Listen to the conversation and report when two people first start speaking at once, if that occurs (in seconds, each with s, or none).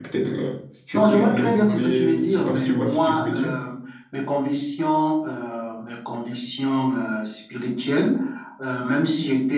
0.9 s